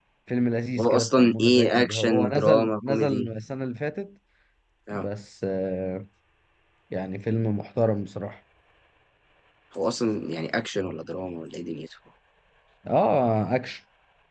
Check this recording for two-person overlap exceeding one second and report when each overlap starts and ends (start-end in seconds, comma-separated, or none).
0.8-3.3